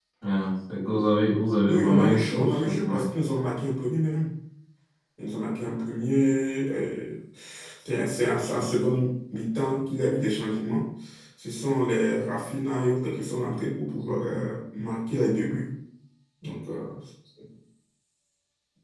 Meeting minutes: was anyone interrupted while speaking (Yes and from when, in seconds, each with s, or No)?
Yes, from 1.7 s